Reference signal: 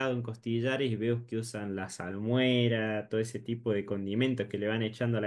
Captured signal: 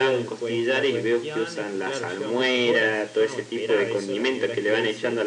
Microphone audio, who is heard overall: both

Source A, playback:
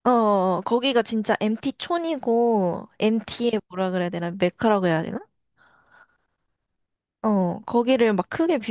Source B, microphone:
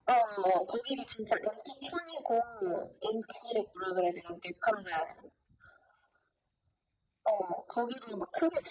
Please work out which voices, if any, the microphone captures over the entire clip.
echo only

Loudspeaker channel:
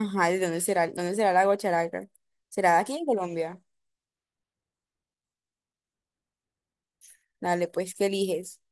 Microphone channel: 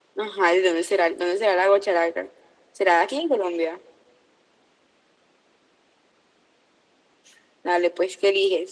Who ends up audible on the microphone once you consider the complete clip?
echo only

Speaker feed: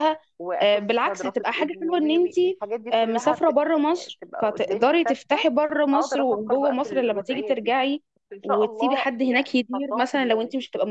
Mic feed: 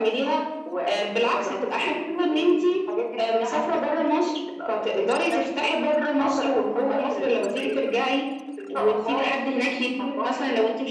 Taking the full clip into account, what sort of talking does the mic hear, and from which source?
echo only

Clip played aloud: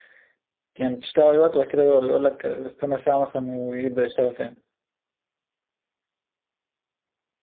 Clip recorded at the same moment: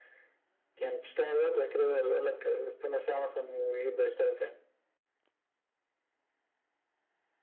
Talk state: echo only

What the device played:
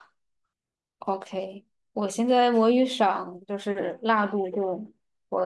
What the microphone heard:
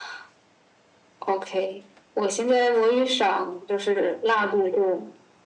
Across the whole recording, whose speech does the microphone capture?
echo only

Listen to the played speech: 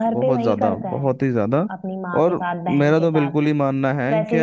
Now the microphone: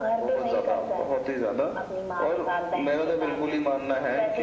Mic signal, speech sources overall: echo only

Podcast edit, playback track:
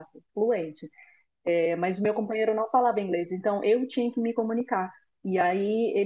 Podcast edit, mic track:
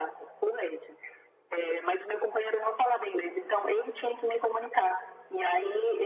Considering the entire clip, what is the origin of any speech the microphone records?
echo only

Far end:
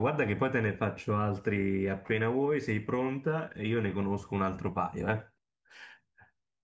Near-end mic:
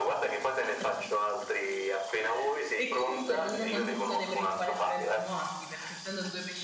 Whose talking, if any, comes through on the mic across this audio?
both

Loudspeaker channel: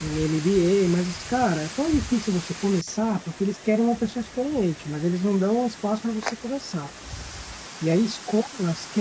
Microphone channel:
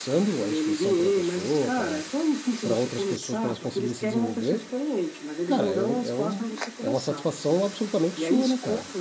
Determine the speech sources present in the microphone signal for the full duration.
both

